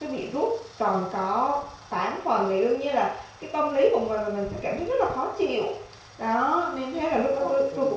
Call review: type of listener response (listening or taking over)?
listening